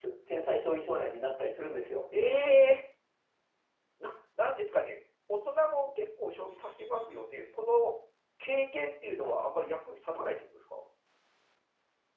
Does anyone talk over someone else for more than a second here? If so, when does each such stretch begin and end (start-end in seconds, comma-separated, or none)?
none